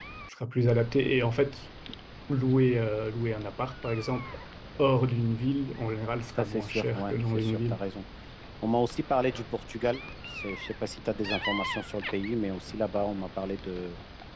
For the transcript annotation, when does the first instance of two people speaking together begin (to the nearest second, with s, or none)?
6 s